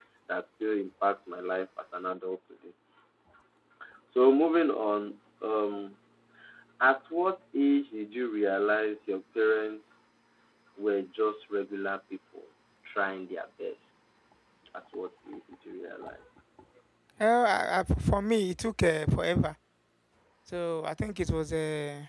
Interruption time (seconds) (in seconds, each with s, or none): none